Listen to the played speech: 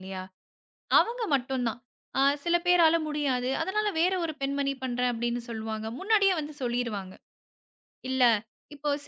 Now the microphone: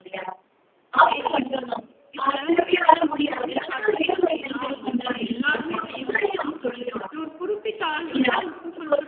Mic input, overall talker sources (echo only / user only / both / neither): both